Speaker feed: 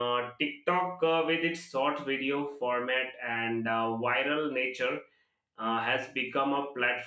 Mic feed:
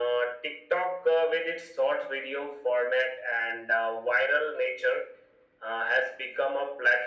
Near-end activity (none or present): none